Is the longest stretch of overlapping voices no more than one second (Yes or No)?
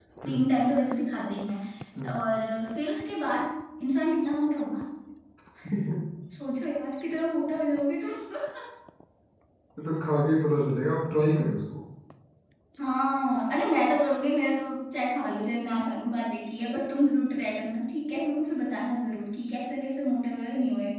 Yes